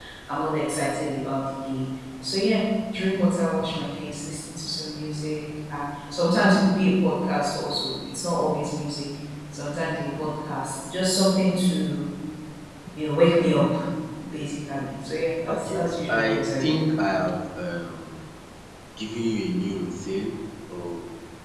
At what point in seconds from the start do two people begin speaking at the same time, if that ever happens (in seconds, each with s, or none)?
15.5 s